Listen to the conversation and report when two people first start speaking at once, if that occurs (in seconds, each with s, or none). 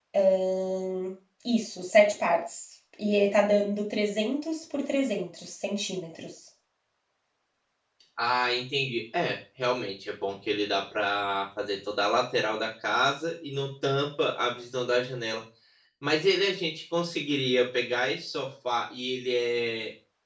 none